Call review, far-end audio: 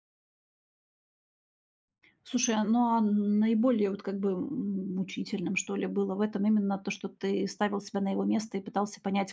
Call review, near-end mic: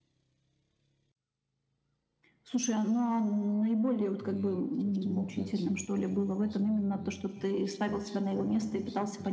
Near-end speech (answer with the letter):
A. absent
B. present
B